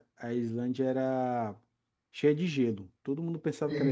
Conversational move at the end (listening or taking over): listening